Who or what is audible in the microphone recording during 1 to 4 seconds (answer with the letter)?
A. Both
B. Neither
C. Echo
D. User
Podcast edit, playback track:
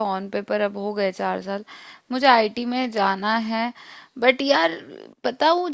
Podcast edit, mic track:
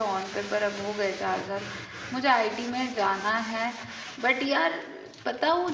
C